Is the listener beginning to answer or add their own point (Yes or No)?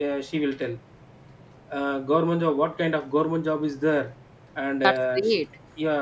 No